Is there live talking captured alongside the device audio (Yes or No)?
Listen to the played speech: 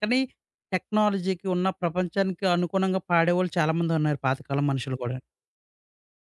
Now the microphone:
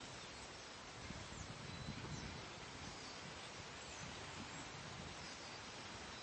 No